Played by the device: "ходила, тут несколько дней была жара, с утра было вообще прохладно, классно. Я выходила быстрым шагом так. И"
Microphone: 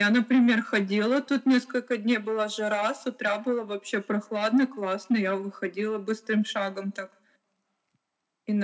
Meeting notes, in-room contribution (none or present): none